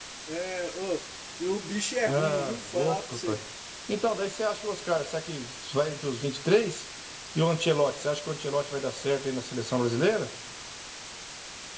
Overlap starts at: 2.1 s

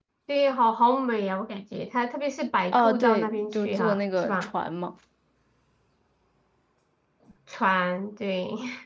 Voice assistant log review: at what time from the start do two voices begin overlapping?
2.7 s

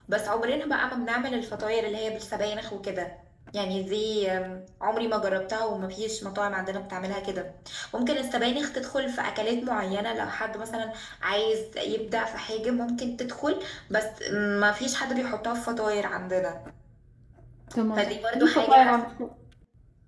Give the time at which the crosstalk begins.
18.0 s

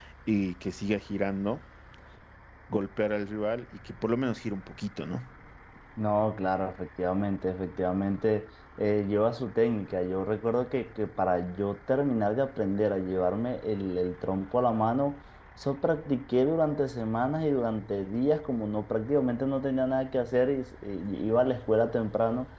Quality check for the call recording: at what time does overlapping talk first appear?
none

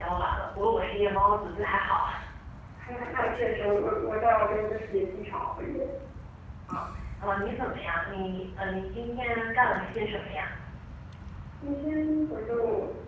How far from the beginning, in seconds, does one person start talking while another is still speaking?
none

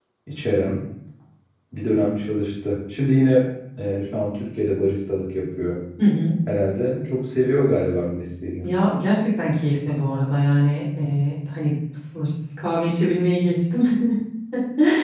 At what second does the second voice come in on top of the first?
none

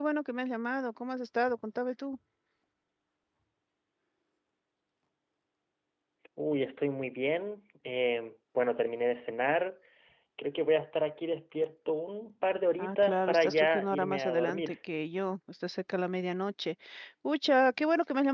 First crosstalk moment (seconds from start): 12.8 s

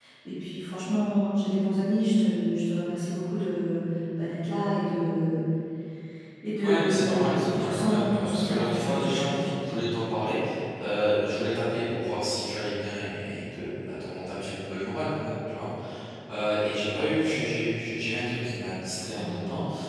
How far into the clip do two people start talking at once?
6.6 s

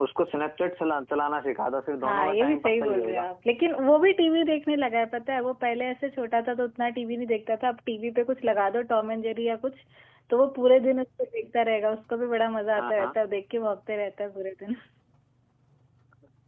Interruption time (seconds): 2.0 s

